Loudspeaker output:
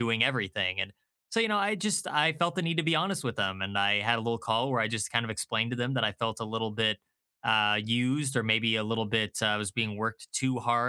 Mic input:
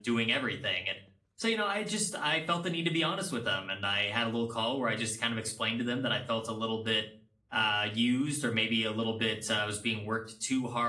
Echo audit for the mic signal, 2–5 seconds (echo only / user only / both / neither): echo only